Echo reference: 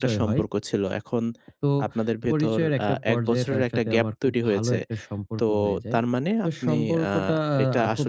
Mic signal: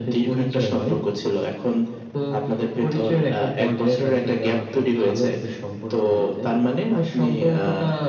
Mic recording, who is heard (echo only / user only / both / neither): echo only